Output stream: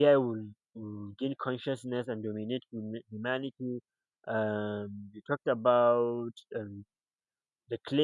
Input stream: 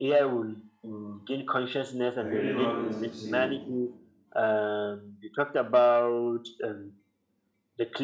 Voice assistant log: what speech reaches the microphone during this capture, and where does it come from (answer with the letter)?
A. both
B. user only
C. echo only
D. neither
A